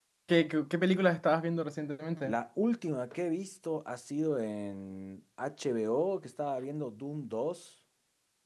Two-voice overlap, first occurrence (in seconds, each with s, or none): none